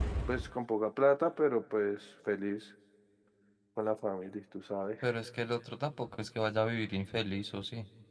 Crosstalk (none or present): none